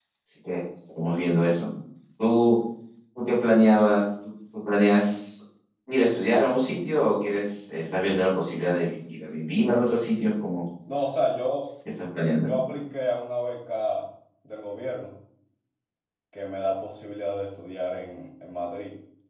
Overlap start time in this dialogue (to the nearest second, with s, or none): none